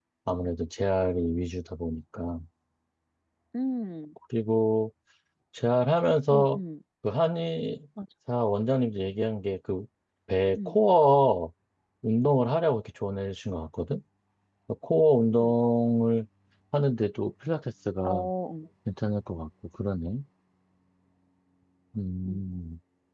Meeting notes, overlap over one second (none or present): none